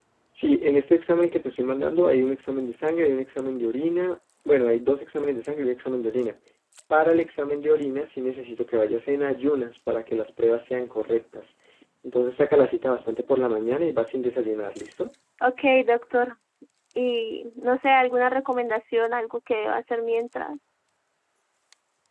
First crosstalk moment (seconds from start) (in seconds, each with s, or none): none